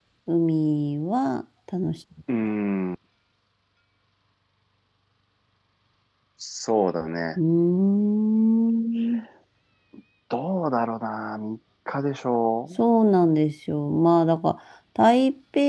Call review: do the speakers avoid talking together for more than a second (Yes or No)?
Yes